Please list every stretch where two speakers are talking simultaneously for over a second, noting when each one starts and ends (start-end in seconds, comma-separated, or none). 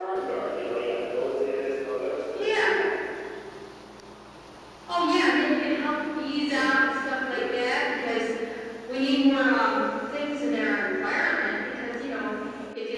none